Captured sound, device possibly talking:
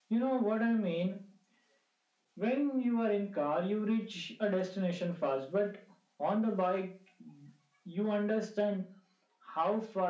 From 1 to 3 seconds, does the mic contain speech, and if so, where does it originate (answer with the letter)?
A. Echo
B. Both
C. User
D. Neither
A